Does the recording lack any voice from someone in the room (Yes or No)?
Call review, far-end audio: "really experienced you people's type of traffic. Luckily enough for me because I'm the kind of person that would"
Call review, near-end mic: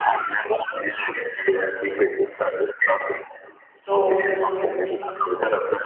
No